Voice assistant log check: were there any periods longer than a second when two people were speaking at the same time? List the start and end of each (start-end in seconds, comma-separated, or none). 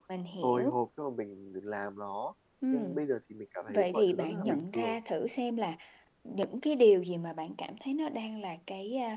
3.7-5.0